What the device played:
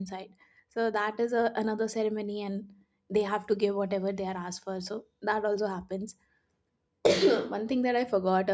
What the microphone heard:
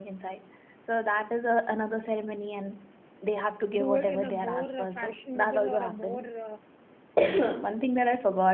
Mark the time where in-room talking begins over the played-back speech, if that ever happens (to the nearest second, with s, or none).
4 s